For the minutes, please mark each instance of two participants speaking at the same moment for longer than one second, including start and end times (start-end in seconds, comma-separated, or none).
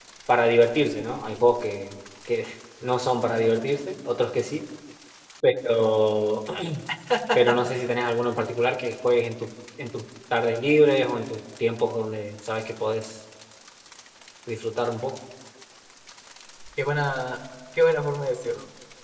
none